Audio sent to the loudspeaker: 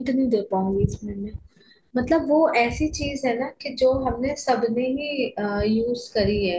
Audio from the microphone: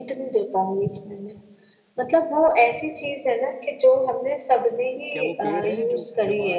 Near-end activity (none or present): present